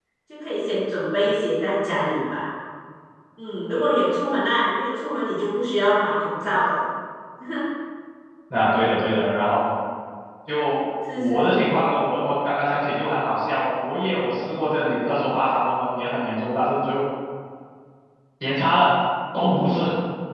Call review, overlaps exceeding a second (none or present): none